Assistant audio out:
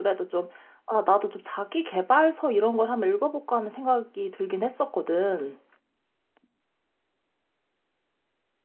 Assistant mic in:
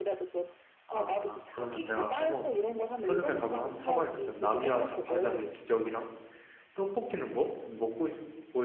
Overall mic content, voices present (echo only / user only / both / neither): both